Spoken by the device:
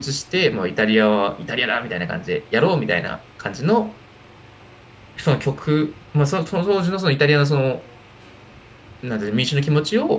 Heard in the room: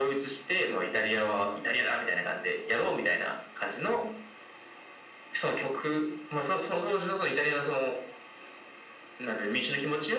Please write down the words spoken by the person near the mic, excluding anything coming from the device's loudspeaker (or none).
none